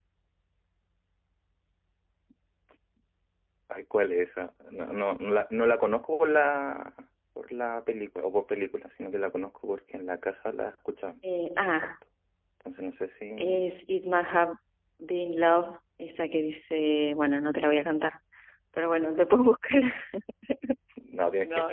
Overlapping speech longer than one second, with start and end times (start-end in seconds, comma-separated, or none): none